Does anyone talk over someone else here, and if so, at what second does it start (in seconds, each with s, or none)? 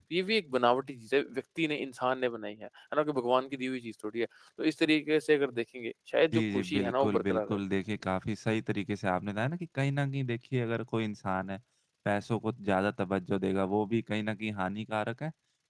6.3 s